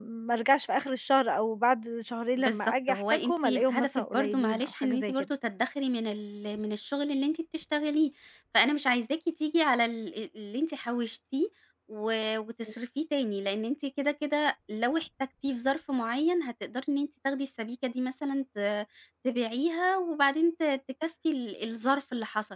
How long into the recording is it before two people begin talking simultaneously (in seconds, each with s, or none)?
2.4 s